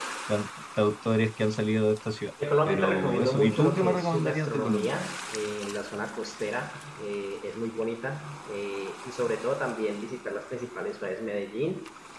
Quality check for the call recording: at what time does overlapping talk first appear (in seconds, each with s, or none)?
2.7 s